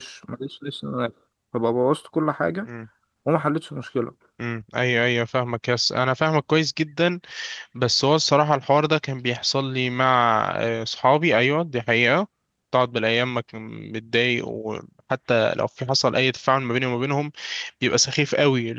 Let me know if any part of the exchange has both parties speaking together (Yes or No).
No